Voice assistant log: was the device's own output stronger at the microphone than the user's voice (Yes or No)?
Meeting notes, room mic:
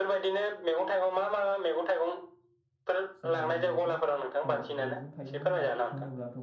Yes